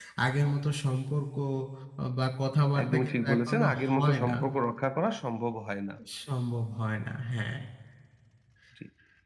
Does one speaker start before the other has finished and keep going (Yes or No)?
Yes